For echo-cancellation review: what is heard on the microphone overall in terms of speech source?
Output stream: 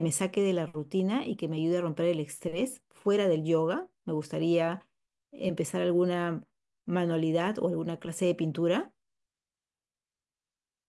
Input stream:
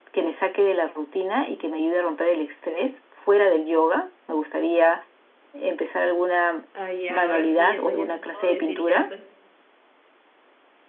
both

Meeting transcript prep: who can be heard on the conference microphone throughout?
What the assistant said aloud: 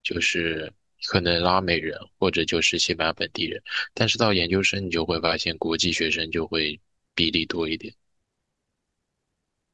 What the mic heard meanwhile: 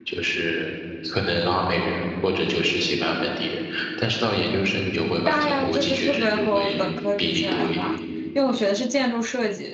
both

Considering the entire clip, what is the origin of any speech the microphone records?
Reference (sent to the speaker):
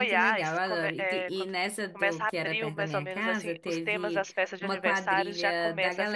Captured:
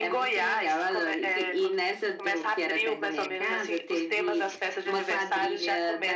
echo only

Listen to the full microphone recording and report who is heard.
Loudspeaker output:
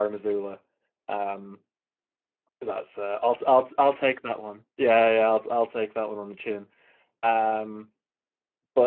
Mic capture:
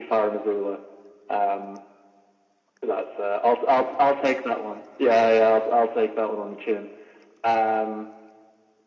echo only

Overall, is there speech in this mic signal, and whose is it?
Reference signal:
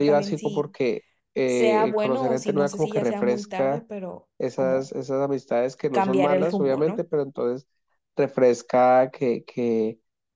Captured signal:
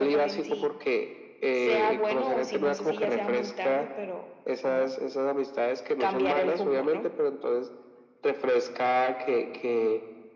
echo only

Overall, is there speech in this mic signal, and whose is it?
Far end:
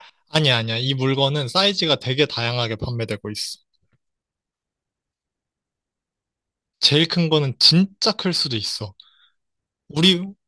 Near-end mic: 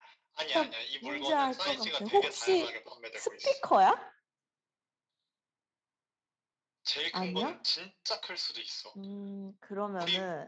both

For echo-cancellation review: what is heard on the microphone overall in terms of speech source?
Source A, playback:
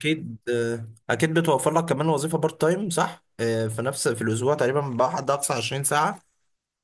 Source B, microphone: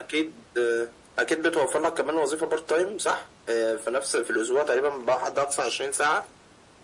echo only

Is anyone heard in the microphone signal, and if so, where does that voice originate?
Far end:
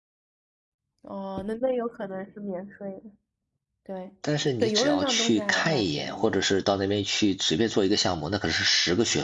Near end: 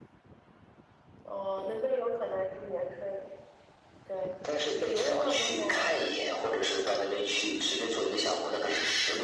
echo only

